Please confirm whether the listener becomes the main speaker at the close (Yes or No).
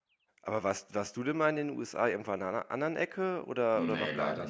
Yes